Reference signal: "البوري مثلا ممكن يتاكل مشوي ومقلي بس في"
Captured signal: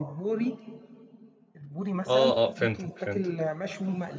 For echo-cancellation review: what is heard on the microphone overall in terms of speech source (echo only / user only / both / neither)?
both